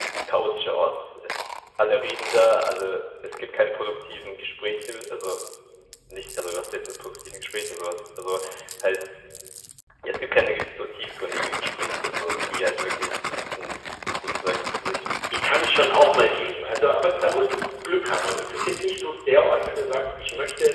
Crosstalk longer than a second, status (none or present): none